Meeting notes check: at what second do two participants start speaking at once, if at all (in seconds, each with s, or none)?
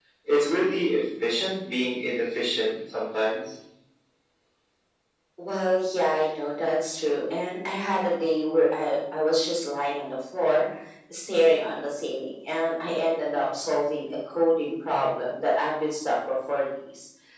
none